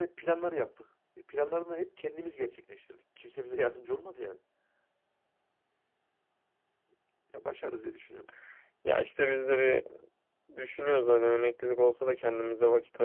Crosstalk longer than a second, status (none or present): none